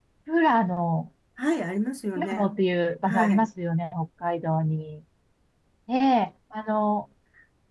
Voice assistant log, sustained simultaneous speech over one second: none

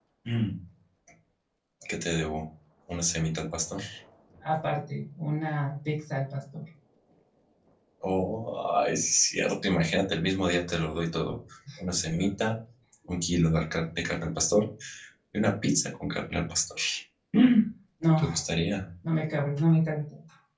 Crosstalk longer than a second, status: none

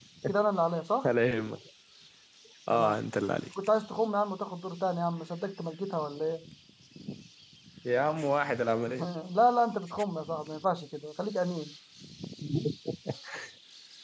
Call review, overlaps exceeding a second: none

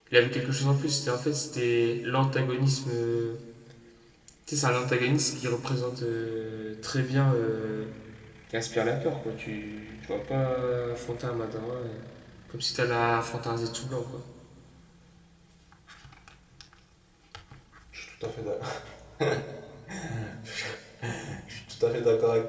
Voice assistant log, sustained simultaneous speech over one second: none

